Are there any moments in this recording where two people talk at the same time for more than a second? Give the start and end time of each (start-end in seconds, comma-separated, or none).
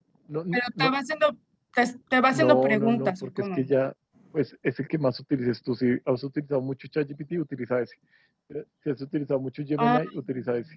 2.3-3.6